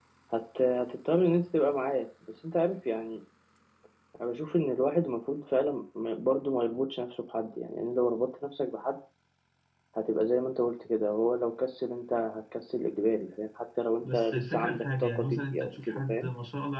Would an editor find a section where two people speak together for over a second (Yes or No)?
Yes